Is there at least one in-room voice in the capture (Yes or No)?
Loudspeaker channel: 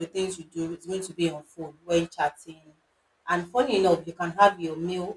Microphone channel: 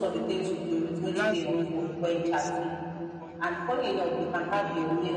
Yes